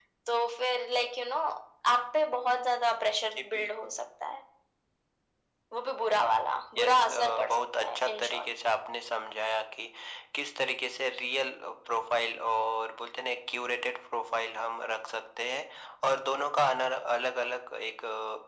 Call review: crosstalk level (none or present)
present